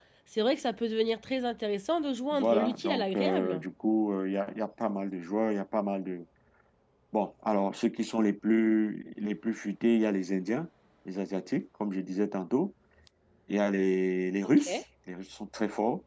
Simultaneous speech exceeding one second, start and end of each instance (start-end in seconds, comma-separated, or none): 2.3-3.6